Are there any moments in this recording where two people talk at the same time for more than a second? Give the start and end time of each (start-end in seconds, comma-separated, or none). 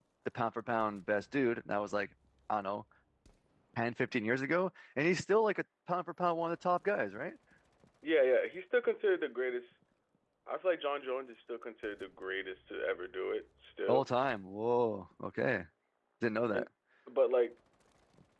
none